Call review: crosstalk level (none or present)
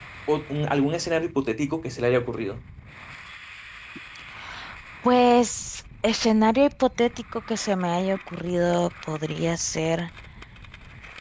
none